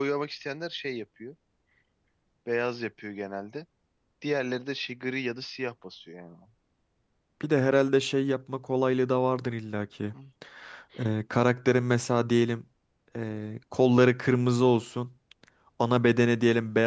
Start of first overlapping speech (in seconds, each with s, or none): none